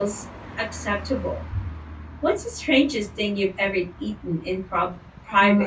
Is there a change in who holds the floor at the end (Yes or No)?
Yes